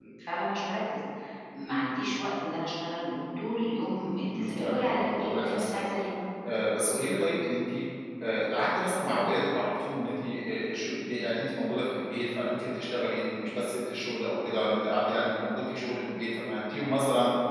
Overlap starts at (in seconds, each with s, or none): 4.3 s